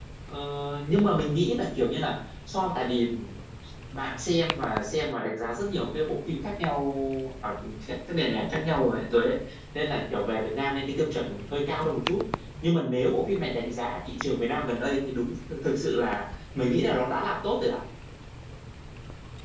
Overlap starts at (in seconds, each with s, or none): none